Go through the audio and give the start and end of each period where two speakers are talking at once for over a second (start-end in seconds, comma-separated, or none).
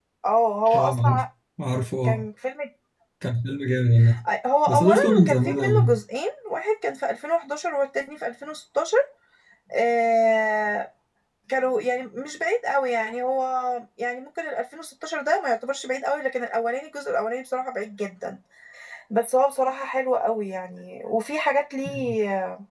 4.7-5.9